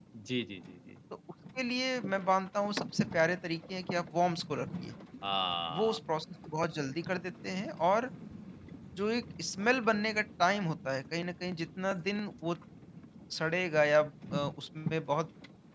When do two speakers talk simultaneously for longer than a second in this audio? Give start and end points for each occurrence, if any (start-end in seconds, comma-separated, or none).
none